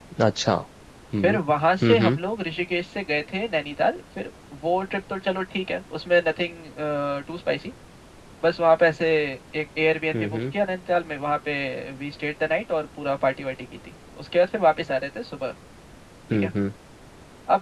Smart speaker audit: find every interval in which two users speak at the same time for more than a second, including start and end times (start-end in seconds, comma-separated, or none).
none